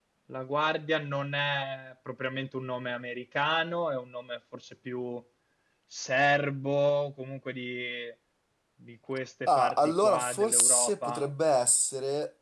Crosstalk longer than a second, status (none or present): present